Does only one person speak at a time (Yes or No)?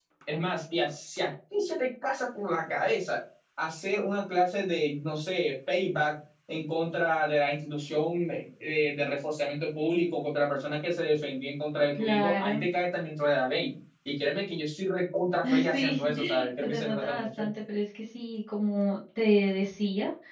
No